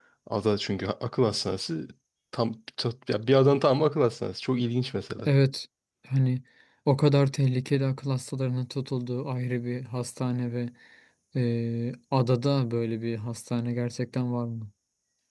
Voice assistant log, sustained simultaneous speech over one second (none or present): none